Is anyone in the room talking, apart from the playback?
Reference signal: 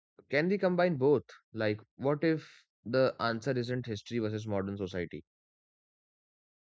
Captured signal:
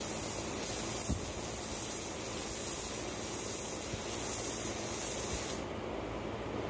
No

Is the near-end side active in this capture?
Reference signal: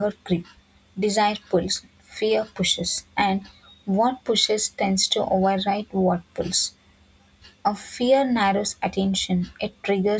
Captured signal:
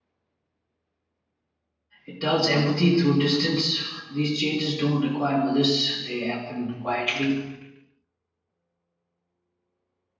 Yes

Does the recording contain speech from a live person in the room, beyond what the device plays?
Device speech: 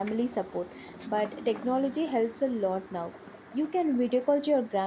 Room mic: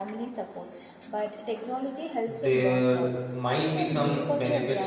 Yes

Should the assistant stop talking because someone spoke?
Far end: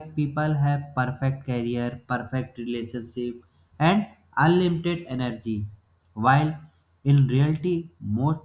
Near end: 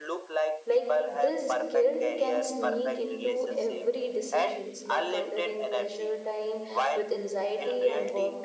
Yes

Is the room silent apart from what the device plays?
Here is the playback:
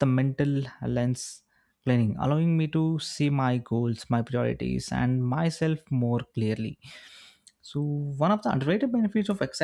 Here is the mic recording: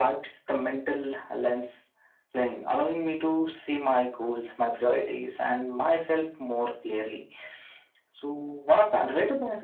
Yes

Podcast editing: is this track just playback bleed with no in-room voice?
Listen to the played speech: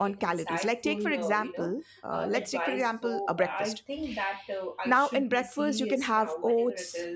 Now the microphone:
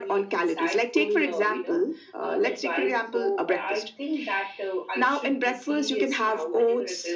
Yes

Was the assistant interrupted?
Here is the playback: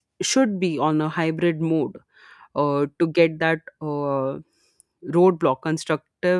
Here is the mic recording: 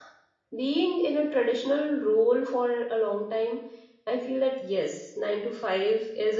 Yes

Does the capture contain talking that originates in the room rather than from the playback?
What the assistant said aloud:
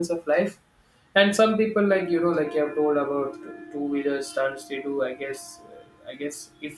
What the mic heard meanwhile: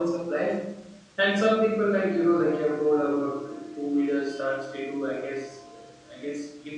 No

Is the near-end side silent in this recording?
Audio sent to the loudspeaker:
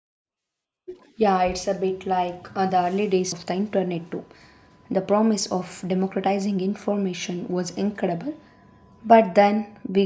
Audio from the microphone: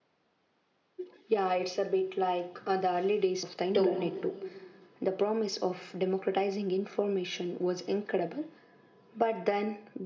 No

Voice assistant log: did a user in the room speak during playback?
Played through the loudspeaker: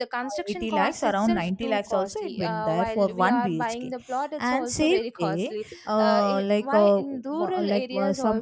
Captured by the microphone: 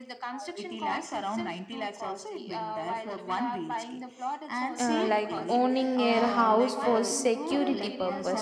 Yes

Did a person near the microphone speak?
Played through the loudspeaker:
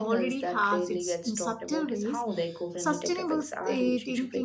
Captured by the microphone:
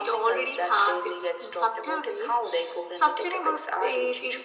No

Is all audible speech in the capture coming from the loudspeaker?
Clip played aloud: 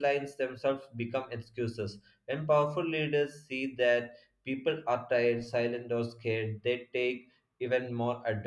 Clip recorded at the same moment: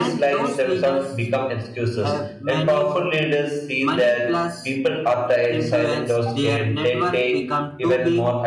No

